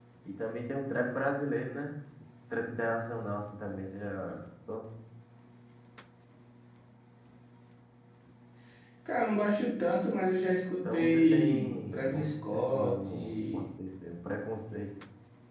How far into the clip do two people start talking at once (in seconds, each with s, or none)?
10.8 s